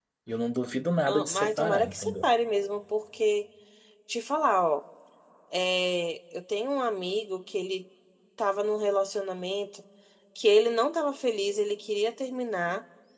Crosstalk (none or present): present